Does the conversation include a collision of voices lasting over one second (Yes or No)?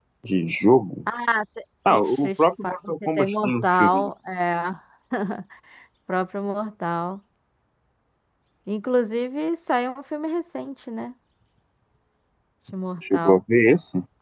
Yes